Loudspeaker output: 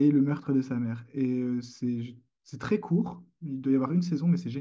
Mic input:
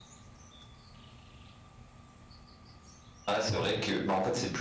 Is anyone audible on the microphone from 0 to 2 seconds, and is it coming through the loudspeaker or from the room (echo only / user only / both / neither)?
neither